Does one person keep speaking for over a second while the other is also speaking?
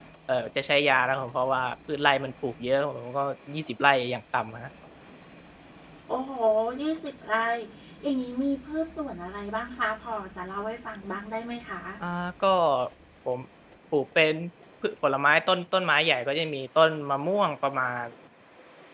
No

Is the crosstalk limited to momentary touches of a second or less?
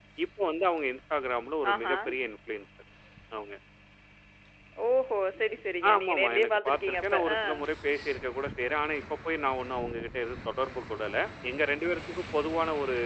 No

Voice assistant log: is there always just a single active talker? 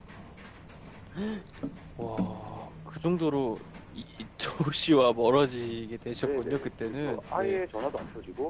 No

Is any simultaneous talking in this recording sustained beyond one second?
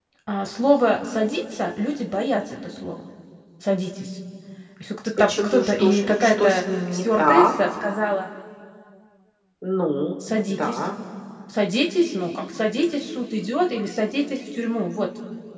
Yes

